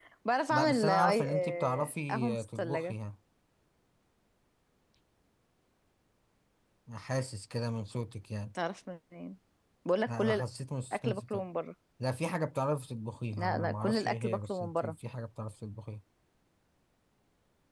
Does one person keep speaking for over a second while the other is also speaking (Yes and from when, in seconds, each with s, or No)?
Yes, from 0.5 s